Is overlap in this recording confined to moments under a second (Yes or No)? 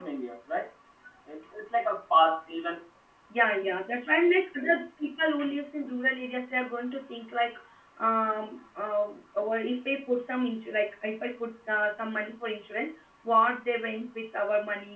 Yes